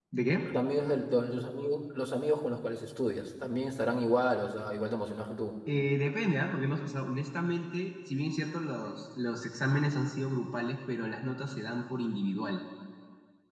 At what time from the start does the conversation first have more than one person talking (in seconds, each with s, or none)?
none